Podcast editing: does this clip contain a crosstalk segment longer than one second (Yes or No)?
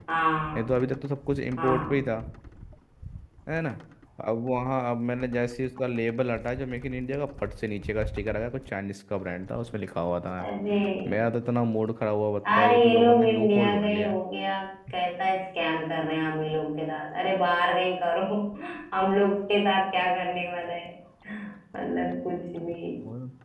Yes